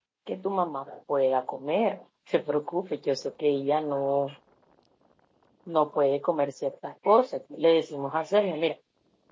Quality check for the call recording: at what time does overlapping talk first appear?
none

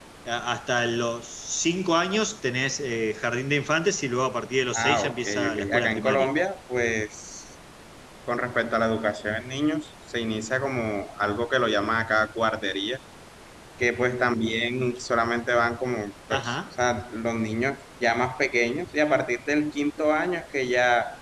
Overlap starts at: 4.8 s

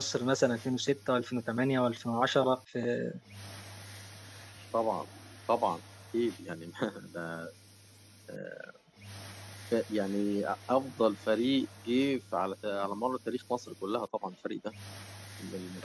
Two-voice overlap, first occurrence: none

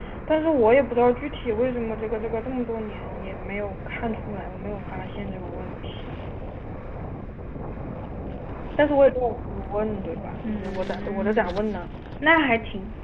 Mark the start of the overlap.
10.4 s

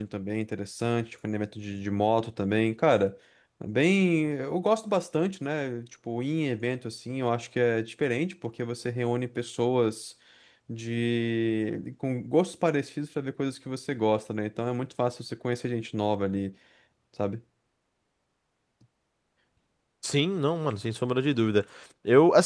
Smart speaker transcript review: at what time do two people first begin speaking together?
none

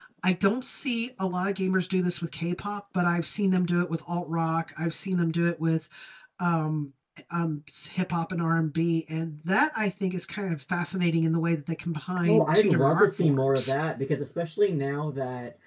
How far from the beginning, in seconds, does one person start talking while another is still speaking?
12.2 s

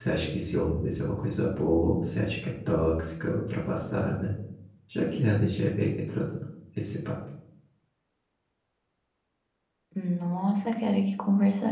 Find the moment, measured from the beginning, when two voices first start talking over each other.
none

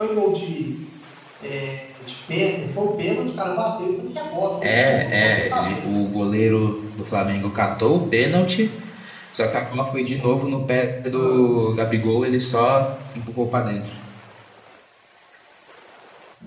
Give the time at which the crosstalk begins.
4.6 s

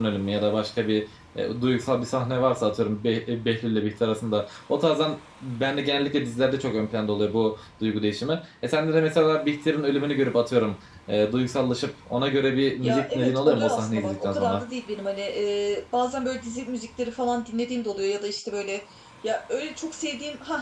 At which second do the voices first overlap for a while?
12.8 s

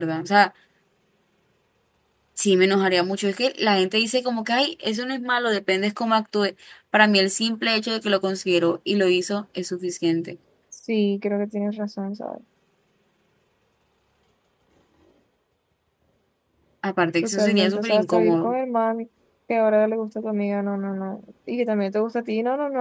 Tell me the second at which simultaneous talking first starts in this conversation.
17.2 s

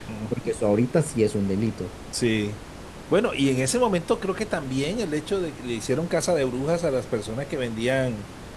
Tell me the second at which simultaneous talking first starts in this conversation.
none

